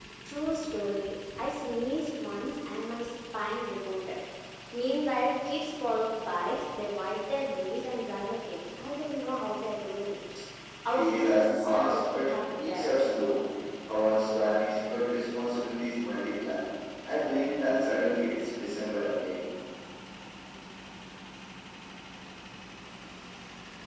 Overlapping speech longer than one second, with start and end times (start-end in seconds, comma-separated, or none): 10.9-12.9